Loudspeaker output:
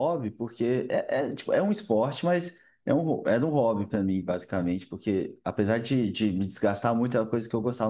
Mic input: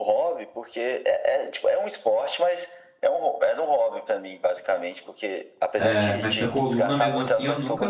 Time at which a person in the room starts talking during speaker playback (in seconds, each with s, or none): 5.7 s